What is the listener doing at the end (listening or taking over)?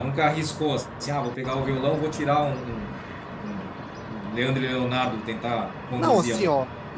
taking over